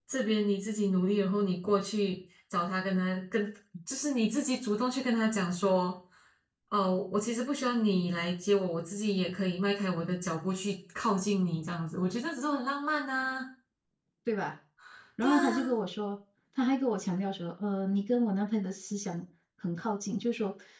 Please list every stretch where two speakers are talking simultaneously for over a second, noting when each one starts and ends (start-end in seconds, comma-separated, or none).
none